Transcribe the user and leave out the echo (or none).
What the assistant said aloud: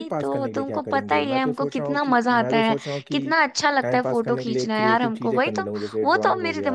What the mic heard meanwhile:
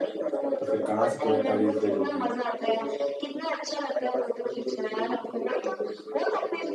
तो फिर कहाँ से तुम्हें इतना रील्स भेजोगी